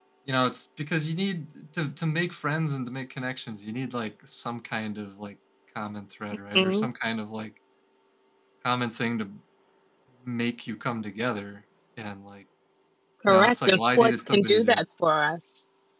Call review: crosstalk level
present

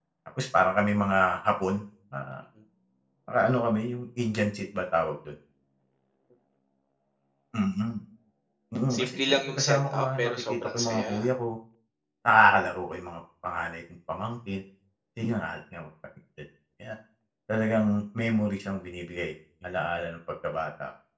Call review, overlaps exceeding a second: present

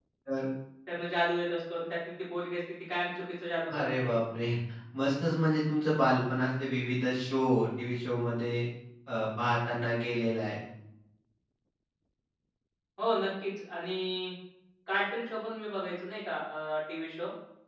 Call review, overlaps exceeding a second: none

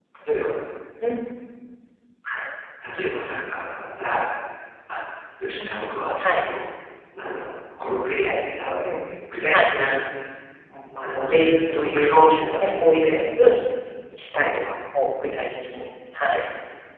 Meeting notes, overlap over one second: present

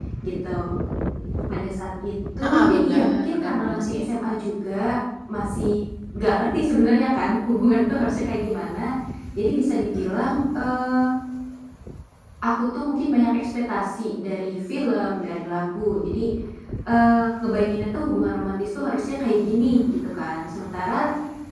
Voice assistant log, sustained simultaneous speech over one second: present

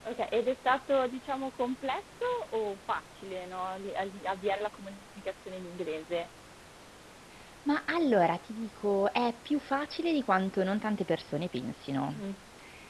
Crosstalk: none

